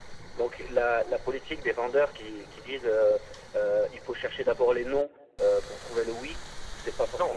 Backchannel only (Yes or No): No